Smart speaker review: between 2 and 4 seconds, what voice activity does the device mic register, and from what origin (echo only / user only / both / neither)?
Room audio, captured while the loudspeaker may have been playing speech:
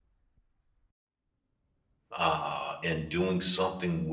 user only